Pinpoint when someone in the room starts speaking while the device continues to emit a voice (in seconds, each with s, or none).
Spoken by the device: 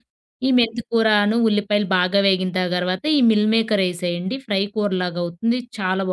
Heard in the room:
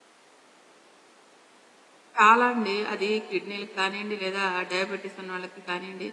2.2 s